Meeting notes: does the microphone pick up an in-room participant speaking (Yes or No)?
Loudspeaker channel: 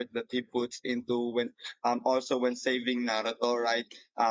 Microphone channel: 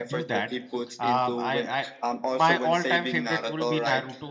Yes